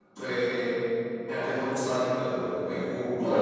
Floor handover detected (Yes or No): Yes